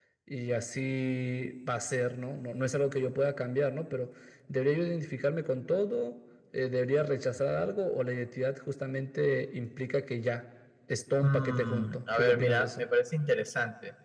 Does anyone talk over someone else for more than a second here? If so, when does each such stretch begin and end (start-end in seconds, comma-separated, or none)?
11.2-12.8